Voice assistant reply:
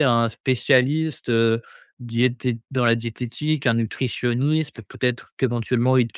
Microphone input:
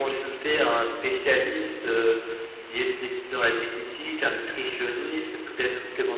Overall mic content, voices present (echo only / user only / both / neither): echo only